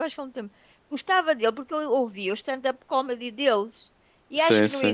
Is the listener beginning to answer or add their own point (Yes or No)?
No